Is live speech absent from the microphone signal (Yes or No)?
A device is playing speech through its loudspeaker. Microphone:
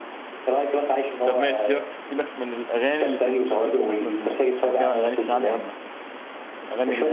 No